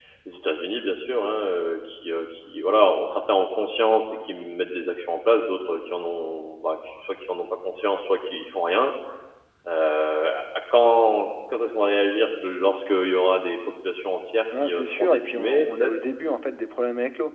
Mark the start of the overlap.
14.5 s

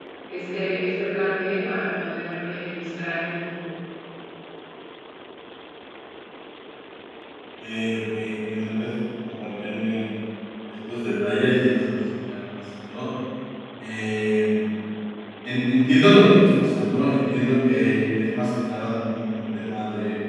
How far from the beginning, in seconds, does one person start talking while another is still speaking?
none

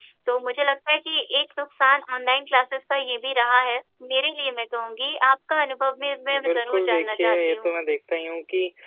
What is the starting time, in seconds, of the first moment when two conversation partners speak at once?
6.3 s

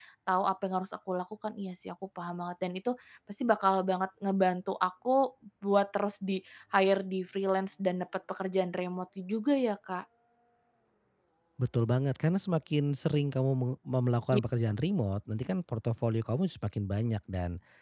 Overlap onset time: none

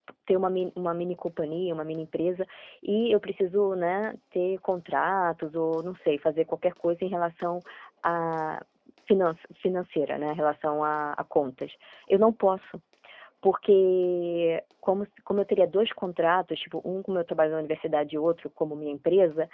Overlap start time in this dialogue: none

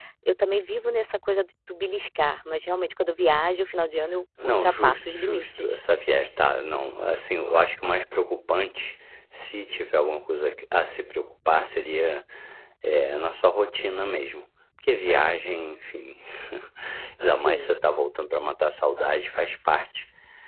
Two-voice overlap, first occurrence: 4.4 s

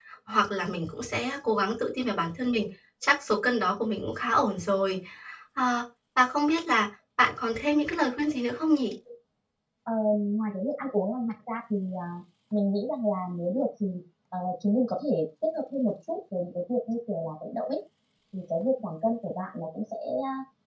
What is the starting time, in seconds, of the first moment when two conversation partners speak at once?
none

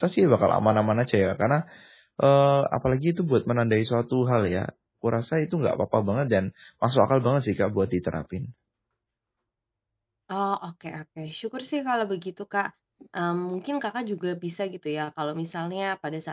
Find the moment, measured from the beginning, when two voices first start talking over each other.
none

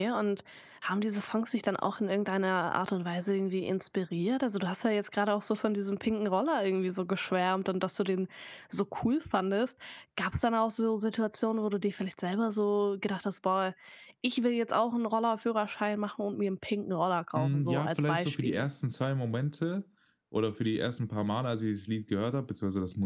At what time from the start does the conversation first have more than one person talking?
17.4 s

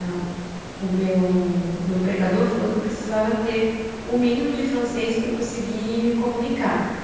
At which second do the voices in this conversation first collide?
none

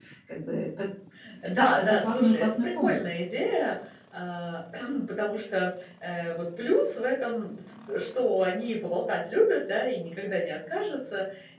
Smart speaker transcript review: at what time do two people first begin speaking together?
1.5 s

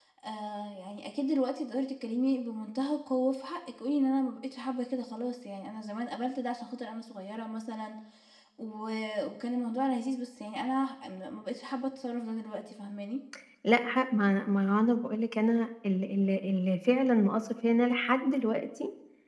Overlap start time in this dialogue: none

